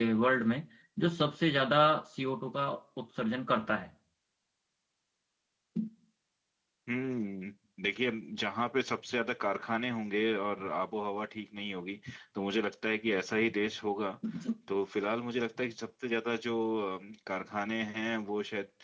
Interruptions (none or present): none